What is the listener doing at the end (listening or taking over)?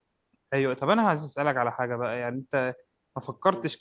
listening